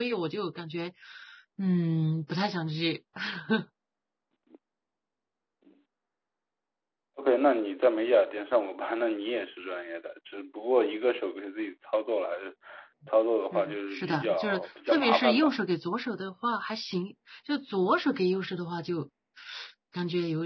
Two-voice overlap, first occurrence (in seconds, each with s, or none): 13.5 s